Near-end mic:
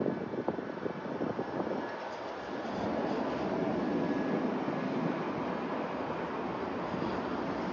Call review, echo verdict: none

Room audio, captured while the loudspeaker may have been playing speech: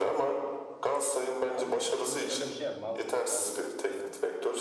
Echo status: present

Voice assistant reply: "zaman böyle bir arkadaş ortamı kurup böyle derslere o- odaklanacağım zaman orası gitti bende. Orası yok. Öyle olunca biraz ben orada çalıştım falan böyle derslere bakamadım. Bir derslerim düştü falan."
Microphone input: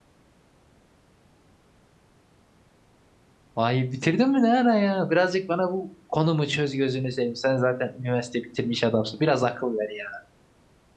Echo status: none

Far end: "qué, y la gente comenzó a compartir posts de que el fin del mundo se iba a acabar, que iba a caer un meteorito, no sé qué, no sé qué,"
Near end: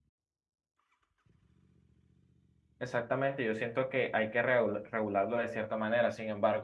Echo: none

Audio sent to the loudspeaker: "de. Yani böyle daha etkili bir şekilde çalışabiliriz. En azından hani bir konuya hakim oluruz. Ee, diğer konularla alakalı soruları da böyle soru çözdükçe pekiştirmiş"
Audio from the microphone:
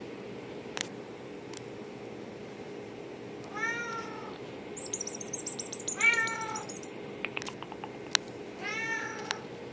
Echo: none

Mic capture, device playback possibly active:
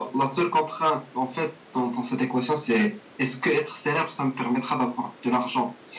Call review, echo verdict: none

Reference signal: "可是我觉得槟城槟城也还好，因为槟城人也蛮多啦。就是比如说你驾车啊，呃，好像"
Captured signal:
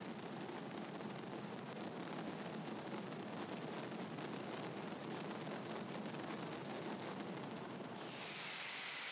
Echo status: none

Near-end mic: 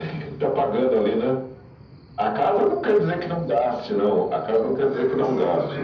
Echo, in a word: present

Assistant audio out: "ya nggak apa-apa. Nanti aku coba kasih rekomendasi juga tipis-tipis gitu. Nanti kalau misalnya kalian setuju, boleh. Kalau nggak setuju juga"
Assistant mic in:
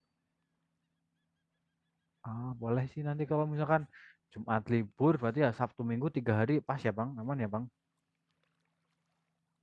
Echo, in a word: none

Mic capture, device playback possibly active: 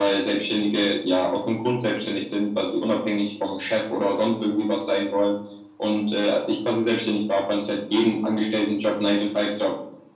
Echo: present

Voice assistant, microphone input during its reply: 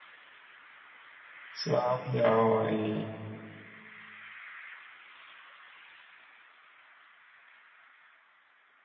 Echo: none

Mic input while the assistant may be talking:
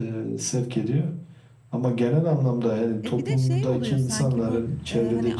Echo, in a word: present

